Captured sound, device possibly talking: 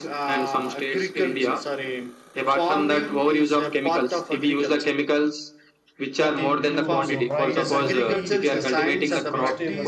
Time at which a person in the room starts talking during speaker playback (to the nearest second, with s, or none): 6 s